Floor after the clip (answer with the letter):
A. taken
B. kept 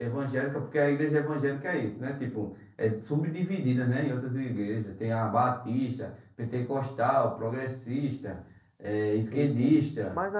A